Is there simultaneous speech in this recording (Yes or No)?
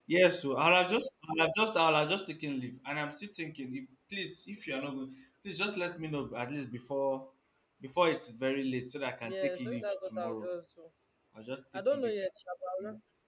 Yes